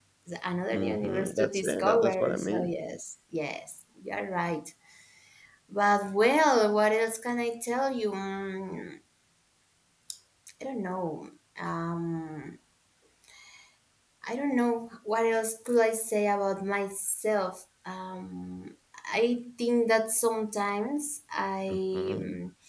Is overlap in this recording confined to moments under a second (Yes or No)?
No